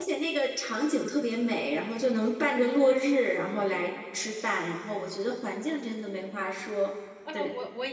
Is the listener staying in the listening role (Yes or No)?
No